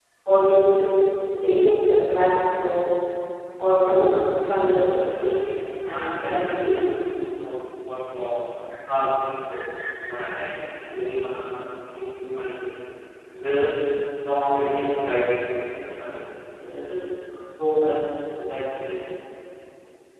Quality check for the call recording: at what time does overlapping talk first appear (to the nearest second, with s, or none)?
5 s